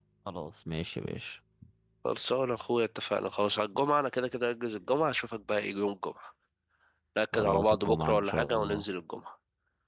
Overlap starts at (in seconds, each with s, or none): 7.3 s